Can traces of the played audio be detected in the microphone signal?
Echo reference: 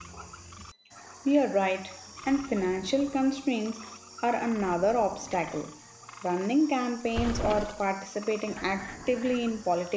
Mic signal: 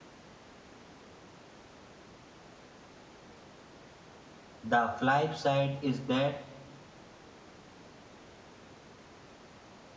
No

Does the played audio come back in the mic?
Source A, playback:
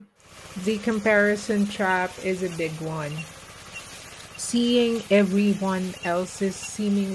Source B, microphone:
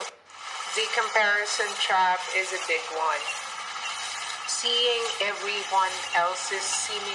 Yes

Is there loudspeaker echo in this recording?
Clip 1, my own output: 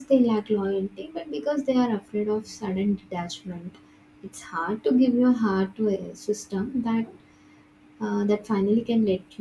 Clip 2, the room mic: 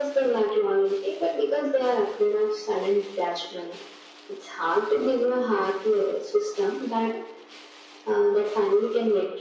Yes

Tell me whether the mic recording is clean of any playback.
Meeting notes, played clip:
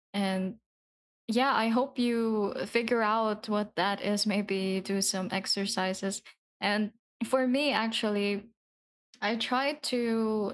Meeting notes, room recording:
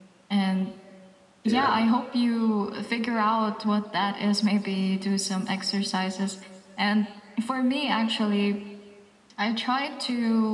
No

